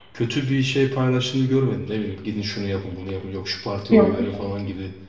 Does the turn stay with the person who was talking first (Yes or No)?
Yes